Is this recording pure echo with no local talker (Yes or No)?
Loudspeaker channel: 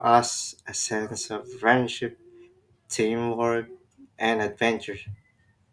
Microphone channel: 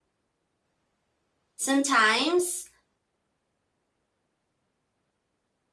No